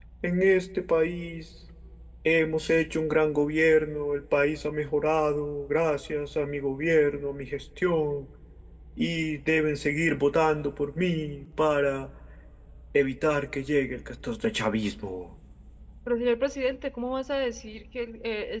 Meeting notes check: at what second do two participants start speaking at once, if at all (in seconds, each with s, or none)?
none